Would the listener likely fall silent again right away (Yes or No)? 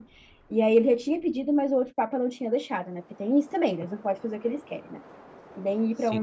No